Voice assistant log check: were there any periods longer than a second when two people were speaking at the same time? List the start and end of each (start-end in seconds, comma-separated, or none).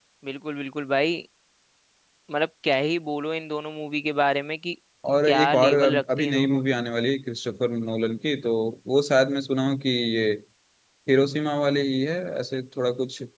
5.3-6.6